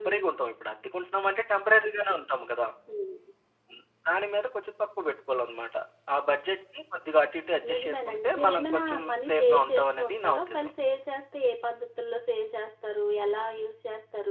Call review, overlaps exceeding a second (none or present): present